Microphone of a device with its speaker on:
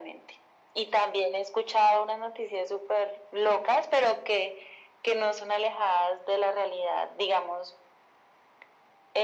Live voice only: none

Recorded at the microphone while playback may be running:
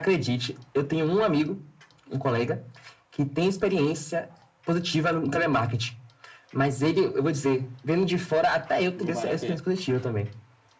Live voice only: Não vale a pena.

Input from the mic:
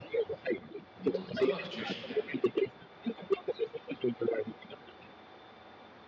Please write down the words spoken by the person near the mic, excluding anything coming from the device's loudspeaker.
本当座学中心だよね。

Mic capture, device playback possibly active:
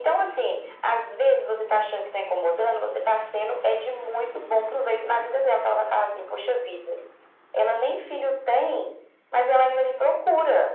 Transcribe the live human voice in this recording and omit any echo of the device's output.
none

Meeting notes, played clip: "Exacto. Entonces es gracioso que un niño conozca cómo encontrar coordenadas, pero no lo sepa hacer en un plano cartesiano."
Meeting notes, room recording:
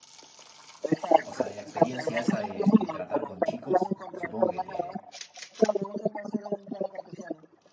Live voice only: O sea, de la experiencia esa de, de tratar con chicos, supongo que te,

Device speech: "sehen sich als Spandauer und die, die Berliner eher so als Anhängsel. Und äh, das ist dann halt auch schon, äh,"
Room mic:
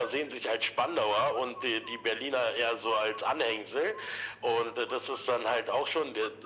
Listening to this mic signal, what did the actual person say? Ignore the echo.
none

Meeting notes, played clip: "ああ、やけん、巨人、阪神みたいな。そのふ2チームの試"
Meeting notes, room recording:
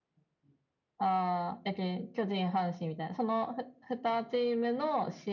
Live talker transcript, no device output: none

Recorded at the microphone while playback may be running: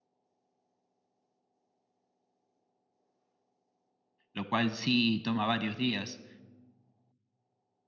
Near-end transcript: lo cual sí toma varios días,

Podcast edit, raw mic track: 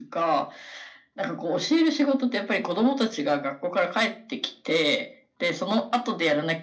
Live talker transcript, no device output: none

